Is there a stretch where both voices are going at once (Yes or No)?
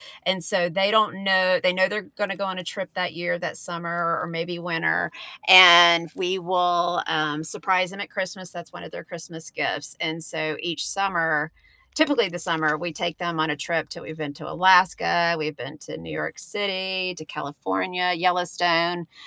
No